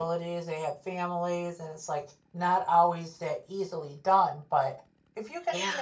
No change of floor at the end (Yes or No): Yes